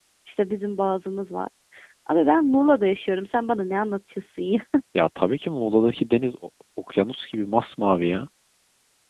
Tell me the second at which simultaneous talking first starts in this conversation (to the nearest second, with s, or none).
none